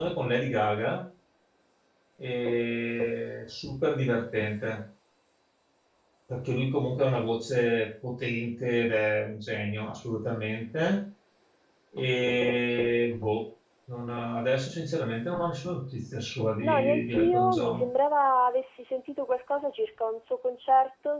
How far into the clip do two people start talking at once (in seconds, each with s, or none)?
16.6 s